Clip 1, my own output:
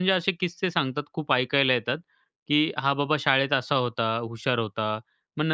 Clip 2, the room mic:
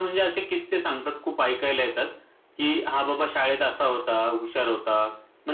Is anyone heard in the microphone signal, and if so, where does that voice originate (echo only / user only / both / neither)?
echo only